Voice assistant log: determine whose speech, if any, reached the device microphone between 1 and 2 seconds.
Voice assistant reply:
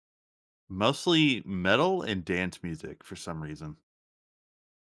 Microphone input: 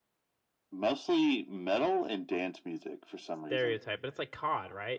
echo only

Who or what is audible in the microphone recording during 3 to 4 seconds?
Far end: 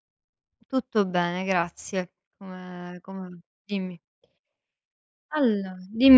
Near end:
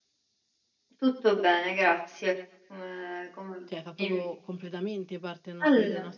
both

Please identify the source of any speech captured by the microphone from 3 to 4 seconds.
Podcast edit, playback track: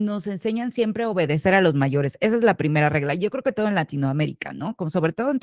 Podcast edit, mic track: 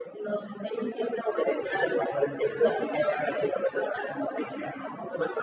echo only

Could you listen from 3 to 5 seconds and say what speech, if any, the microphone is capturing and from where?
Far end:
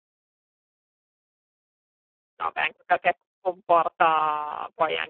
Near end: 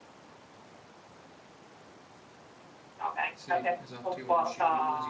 both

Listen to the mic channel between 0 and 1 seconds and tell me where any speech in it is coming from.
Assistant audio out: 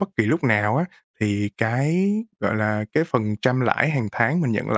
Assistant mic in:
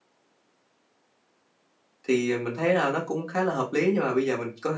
neither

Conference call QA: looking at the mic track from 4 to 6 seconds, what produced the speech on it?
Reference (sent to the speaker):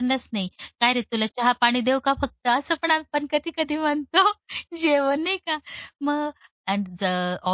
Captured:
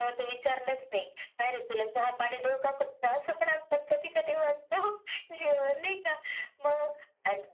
echo only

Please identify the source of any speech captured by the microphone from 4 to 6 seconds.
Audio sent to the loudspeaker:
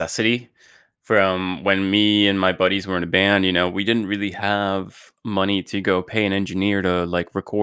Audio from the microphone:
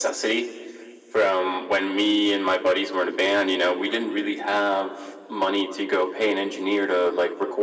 echo only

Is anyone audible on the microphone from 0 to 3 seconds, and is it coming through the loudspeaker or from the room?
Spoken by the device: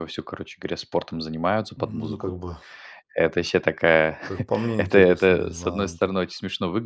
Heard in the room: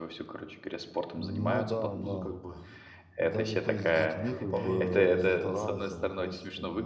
both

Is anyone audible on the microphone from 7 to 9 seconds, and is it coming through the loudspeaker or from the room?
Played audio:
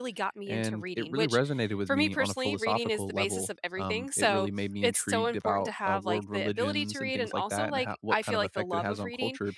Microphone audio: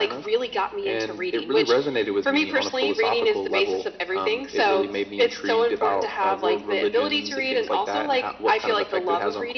echo only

